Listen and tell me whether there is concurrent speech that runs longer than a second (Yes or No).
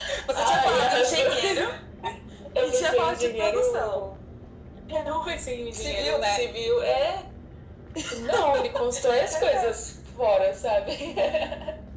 Yes